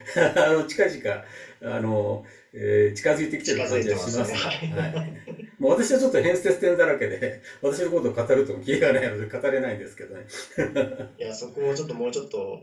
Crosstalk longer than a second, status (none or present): present